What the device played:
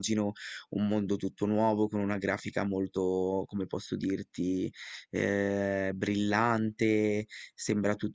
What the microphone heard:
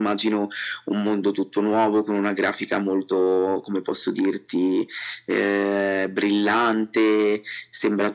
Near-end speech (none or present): none